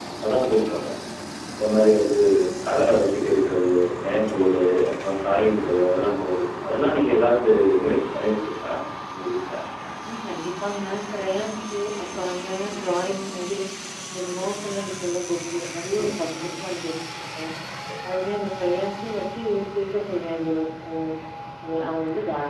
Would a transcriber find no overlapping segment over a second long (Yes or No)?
Yes